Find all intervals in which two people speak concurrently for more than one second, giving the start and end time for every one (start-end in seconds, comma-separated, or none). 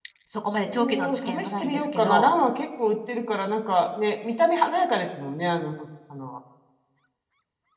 0.6-2.3